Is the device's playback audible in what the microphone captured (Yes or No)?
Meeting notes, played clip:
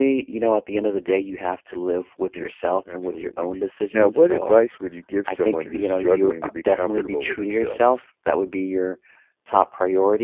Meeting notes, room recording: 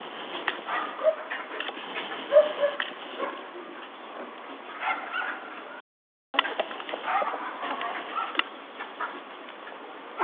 No